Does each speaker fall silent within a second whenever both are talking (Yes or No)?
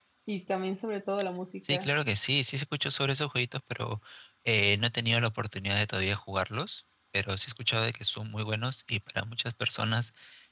Yes